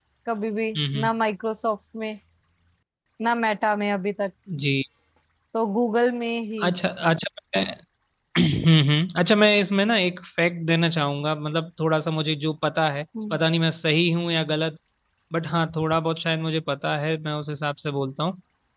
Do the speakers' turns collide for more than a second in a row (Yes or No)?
No